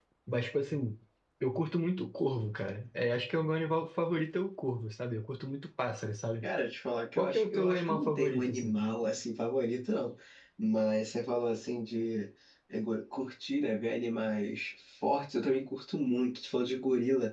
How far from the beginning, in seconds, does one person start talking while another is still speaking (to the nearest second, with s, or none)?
7 s